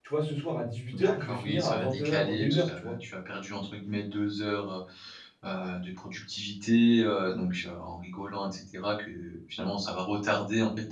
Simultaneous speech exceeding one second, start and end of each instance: 0.9-2.9

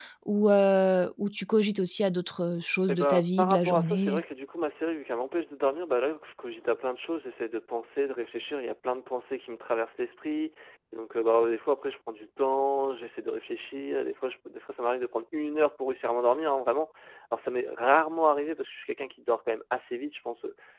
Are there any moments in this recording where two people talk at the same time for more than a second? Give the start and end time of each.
2.9-4.2

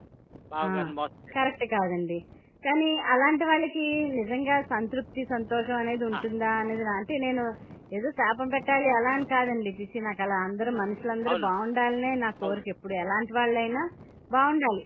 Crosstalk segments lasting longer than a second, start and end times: none

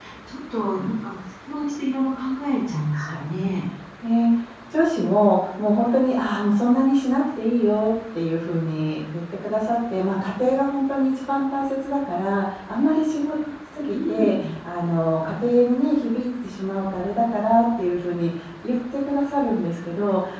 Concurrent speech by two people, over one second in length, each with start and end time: none

